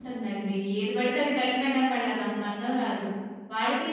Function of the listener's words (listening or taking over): listening